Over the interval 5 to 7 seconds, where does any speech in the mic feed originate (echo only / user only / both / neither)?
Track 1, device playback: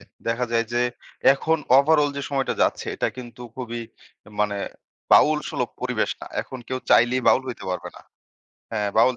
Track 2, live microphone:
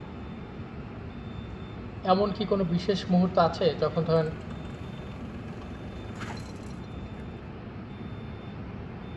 neither